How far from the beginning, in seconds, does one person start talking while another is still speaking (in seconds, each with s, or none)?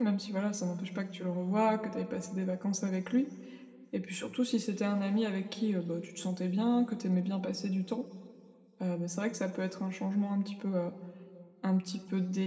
none